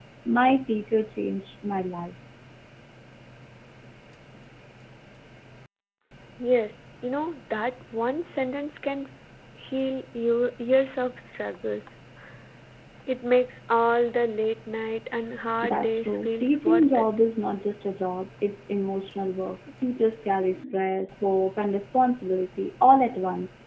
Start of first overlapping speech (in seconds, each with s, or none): 15.6 s